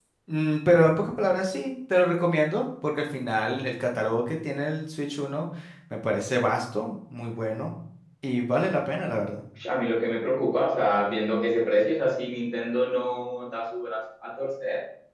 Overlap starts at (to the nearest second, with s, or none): none